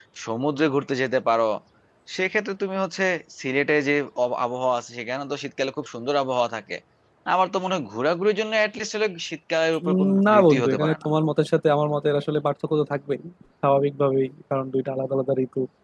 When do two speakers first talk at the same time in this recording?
9.8 s

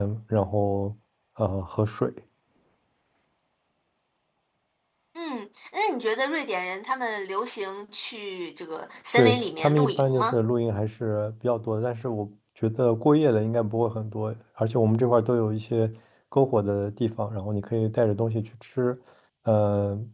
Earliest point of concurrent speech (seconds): 9.1 s

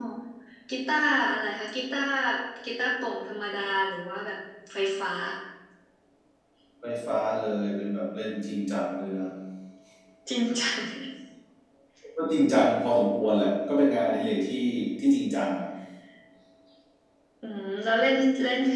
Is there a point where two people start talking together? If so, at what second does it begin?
none

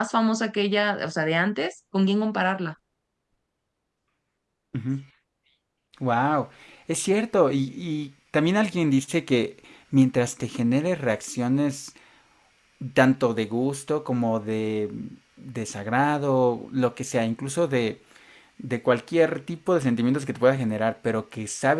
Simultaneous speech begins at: none

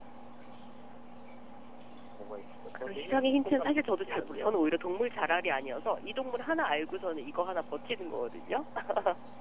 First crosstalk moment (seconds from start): 2.9 s

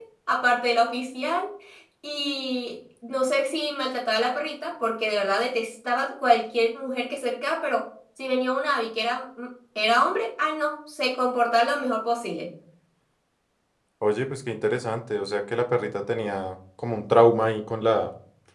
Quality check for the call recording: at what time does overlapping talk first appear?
none

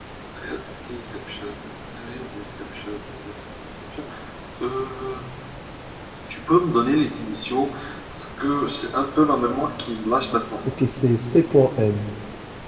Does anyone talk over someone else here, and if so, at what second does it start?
none

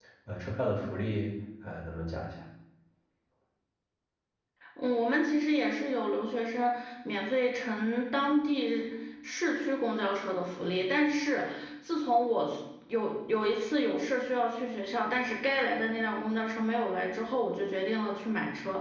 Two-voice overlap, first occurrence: none

